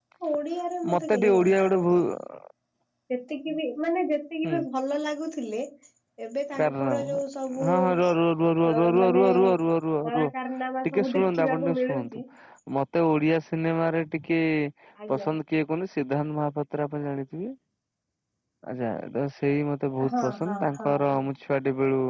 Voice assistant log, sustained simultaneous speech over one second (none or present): present